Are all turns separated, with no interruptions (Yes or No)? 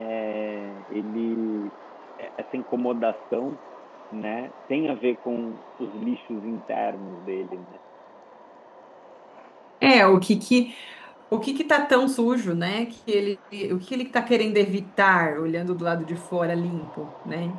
Yes